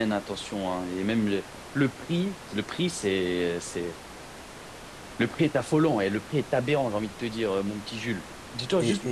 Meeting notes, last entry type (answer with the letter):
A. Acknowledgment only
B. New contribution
A